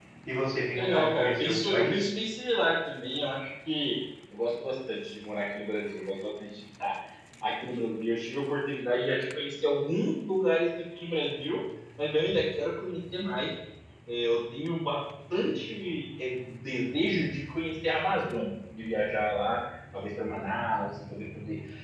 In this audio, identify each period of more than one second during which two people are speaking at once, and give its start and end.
0.8-2.1

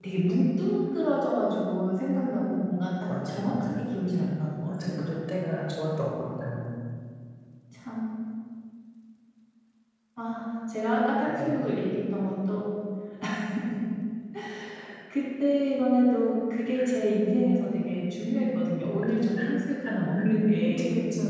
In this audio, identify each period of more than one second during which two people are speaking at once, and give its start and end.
2.2-3.8

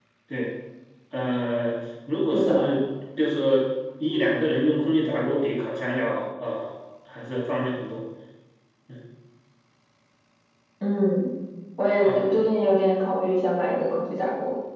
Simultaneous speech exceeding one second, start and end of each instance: none

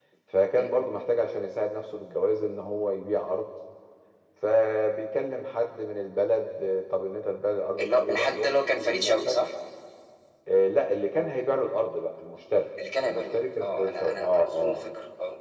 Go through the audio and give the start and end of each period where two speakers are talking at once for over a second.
7.8-9.4, 13.0-14.8

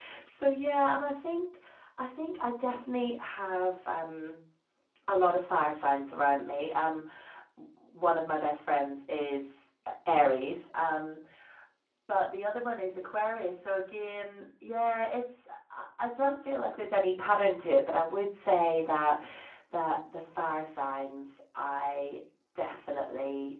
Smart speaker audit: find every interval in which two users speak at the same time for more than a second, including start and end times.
none

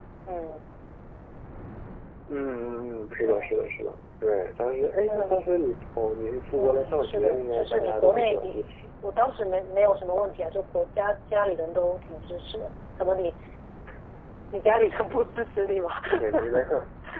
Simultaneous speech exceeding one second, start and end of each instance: 6.5-8.4

